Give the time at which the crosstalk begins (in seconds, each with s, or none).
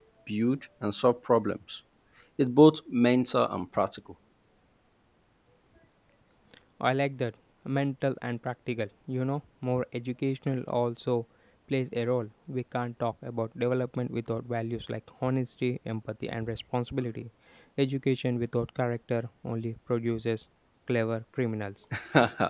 none